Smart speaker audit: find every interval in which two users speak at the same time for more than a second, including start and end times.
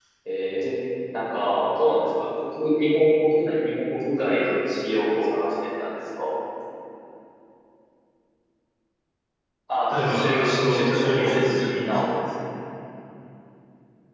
9.9-12.0

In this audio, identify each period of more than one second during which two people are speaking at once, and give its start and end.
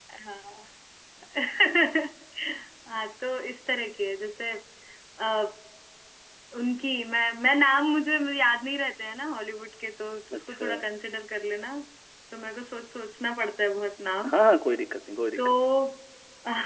none

